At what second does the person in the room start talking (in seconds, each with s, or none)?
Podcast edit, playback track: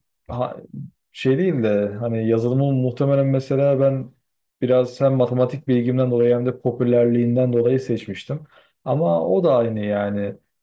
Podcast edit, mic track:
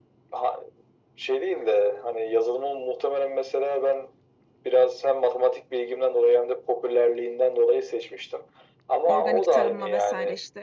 9.0 s